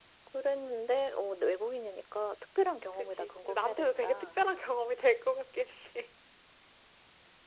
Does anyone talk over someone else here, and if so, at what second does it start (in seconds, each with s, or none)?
3.0 s